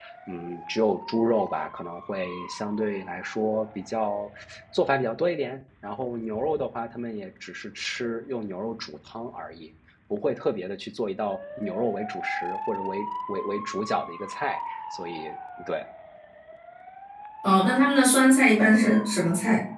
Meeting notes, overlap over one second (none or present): none